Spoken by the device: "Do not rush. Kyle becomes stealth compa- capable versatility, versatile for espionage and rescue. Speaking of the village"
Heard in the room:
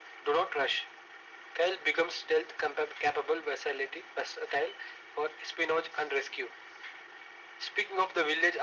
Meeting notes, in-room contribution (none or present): none